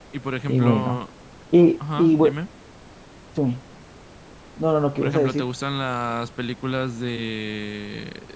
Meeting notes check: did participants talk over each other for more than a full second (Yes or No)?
No